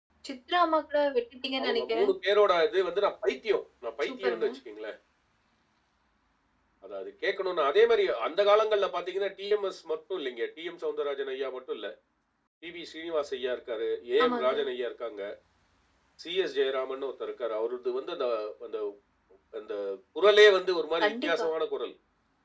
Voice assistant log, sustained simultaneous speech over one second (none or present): none